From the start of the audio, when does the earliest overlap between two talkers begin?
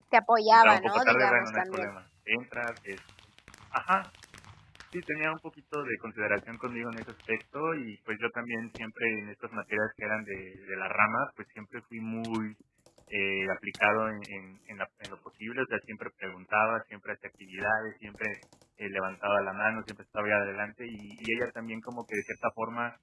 0.5 s

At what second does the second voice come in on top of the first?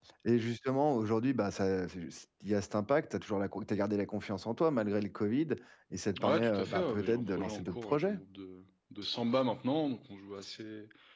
6.2 s

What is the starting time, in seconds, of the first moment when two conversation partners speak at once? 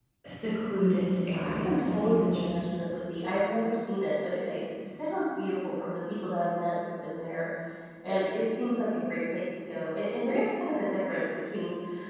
1.3 s

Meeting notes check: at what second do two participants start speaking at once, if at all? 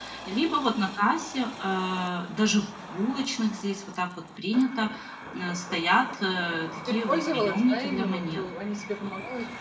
6.9 s

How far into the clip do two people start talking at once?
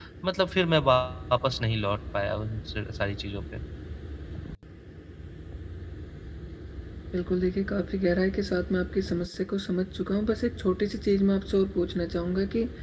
none

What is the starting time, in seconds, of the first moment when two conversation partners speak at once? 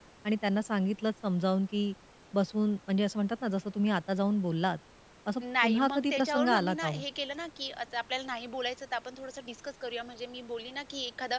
5.4 s

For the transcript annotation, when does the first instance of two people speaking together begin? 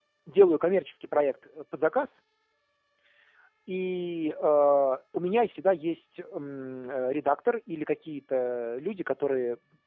none

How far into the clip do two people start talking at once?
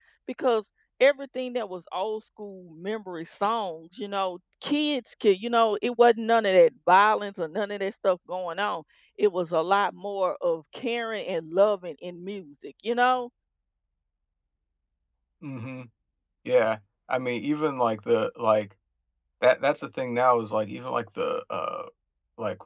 none

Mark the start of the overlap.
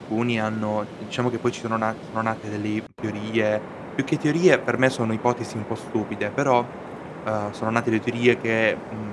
none

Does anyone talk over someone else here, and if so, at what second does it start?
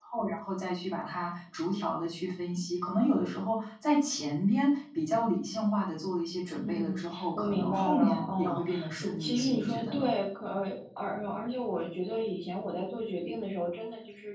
6.6 s

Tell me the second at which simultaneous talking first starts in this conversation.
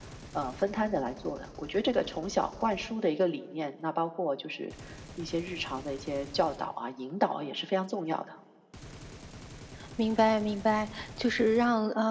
none

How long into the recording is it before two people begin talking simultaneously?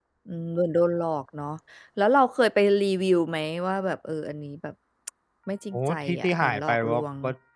5.7 s

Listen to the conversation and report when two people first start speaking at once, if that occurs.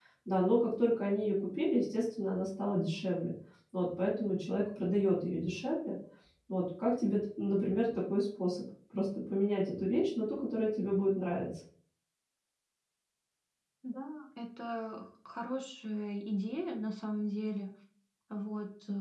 none

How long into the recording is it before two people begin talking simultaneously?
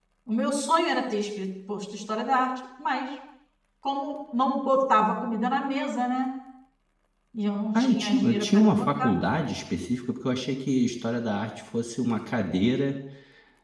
7.7 s

